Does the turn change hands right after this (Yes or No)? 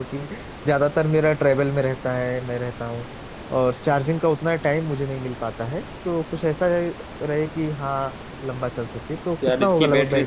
Yes